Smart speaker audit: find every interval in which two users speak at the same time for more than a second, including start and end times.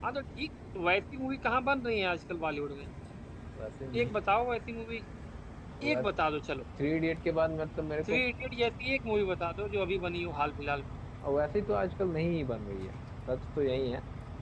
none

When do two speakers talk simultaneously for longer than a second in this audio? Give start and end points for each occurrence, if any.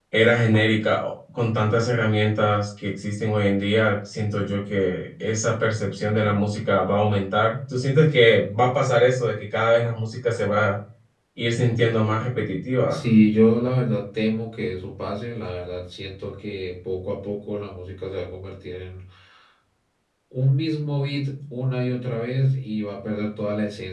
none

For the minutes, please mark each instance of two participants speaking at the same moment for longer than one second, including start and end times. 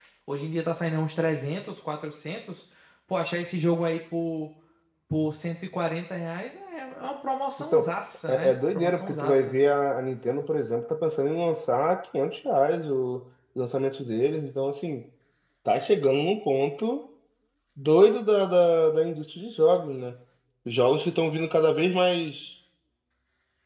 8.3-9.6

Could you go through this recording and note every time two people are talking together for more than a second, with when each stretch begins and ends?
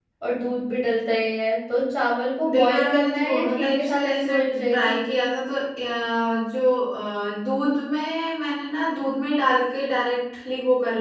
2.5-4.9

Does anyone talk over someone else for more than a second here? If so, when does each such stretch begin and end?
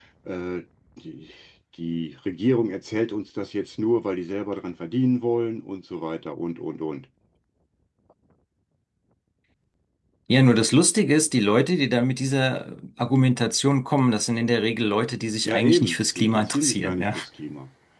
15.4-17.1

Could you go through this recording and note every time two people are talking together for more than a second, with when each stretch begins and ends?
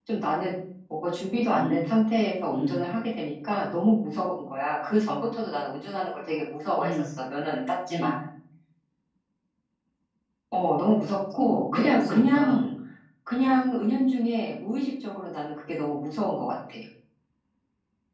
11.4-12.6

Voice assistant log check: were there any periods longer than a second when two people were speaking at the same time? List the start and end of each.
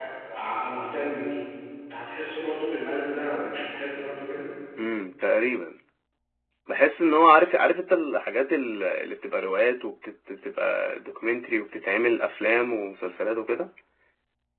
none

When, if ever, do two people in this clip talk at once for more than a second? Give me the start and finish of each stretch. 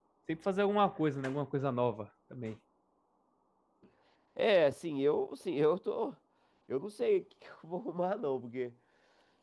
none

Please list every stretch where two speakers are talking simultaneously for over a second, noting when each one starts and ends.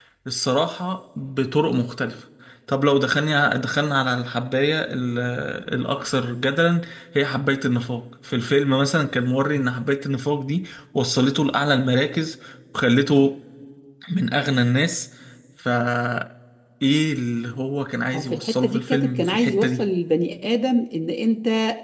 18.1-19.8

